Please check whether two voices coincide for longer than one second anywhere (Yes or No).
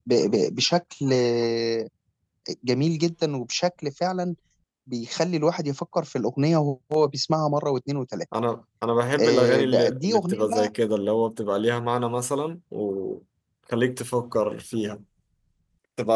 Yes